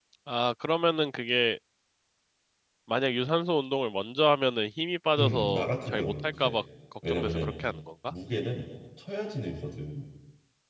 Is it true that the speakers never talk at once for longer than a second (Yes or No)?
No